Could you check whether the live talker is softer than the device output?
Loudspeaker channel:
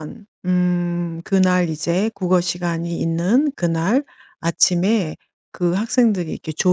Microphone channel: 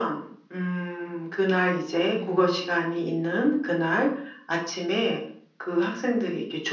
Yes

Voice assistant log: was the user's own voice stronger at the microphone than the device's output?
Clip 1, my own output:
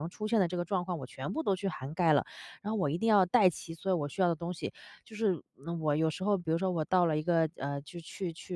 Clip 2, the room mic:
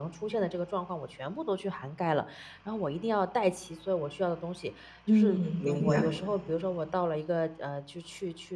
Yes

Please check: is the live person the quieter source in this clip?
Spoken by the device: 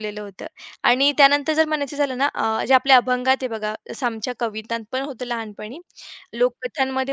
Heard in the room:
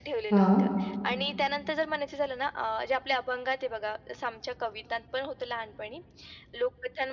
No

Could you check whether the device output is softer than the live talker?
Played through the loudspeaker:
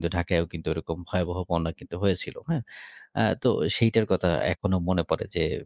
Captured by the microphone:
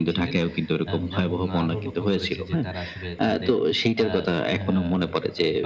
No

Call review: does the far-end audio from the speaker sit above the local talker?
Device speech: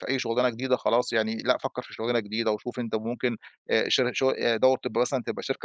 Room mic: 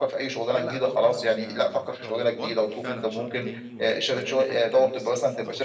Yes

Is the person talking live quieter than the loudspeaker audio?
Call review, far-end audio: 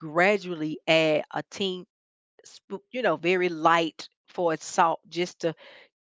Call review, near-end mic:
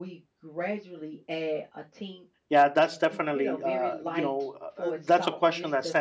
No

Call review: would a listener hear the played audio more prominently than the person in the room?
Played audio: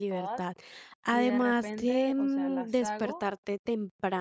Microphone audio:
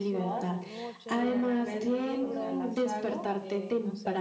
Yes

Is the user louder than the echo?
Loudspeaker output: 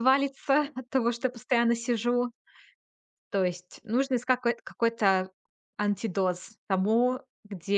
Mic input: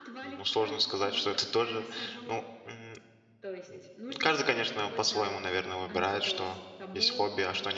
Yes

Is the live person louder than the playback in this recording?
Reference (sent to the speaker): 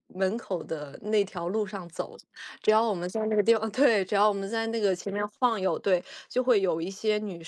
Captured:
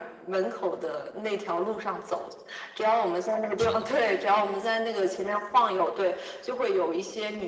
No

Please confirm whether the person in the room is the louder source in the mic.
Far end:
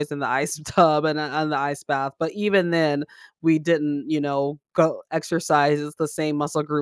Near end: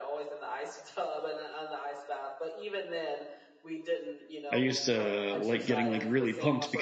Yes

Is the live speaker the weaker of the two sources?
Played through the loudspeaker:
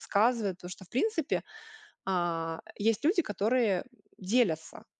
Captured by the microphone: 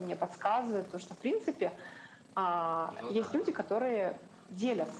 Yes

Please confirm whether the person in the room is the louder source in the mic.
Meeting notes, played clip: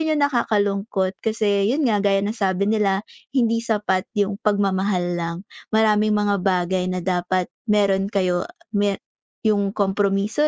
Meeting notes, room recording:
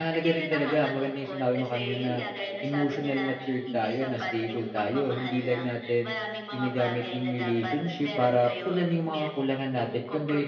Yes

